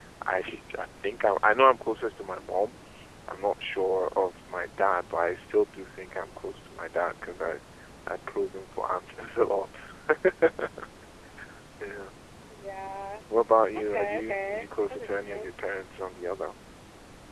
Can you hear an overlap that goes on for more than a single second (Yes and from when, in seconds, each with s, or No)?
Yes, from 13.8 s